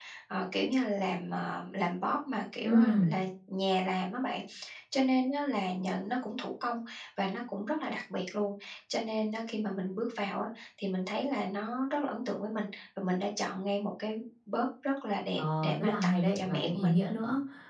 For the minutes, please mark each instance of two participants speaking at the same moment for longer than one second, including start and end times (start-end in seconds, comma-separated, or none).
15.4-16.9